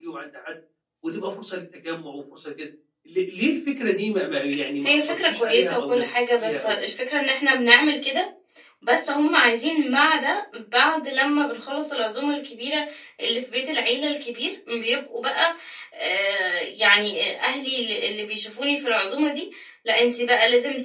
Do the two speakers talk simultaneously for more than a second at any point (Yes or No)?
Yes